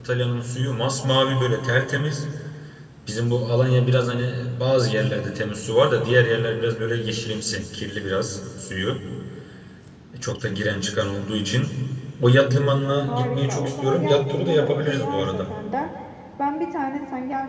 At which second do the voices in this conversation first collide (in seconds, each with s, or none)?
13.1 s